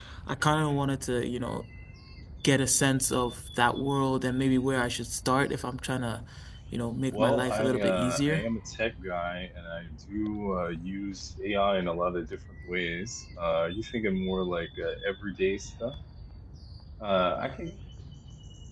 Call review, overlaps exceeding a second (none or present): present